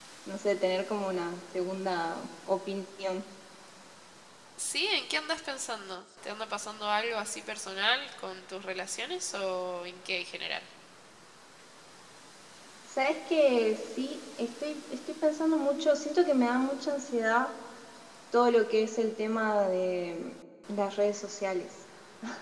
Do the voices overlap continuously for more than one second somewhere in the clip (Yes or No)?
No